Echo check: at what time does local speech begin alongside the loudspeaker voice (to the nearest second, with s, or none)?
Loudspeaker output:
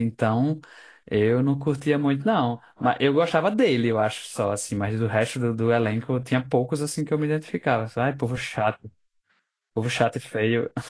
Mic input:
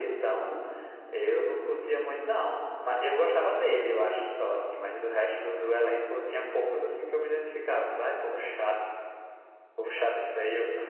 none